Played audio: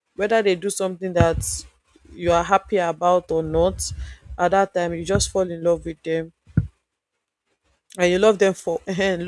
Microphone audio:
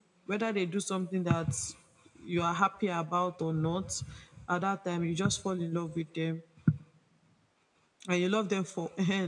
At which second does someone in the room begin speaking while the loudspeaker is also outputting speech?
none

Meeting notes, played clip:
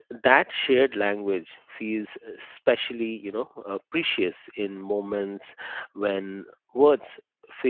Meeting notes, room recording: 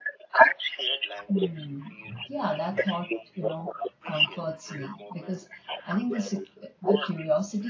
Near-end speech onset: 1.3 s

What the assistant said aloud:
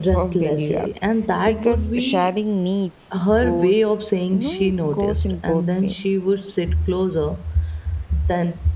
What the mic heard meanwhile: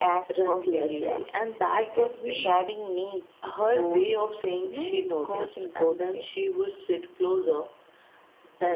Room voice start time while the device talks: none

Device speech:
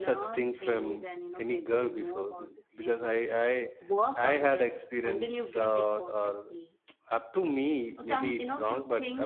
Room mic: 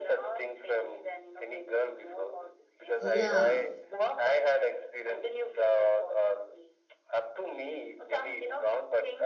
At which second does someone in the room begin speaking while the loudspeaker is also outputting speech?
3.0 s

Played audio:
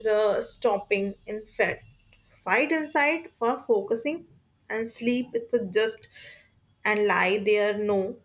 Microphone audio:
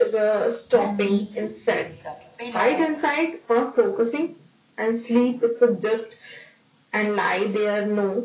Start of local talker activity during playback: 0.7 s

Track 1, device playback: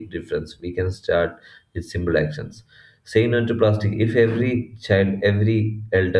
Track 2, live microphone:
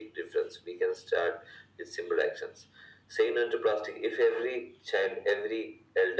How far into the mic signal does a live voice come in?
none

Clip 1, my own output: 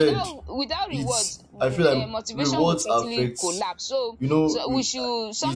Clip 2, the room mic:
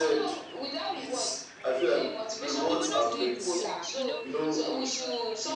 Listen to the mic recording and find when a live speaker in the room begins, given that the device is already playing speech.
2.6 s

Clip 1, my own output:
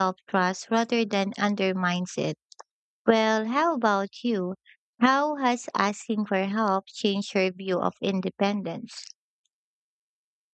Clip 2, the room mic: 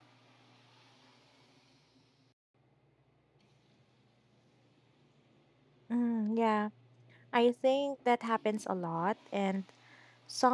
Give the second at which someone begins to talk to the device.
5.9 s

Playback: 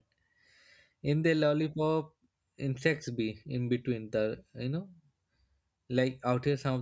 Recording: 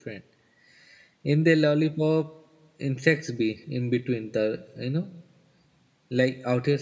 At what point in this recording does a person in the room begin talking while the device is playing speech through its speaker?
none

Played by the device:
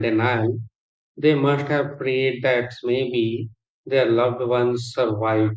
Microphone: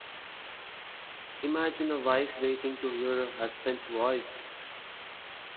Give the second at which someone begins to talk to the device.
1.4 s

